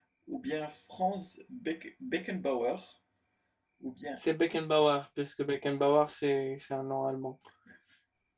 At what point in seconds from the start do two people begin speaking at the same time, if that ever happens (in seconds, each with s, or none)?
none